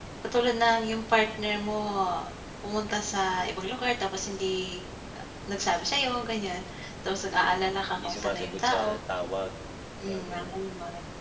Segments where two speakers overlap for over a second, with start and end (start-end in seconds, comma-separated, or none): 7.2-9.0